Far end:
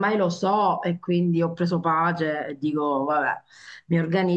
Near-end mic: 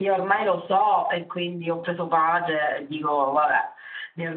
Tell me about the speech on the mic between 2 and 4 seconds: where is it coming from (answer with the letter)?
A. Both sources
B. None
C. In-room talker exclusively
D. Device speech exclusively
D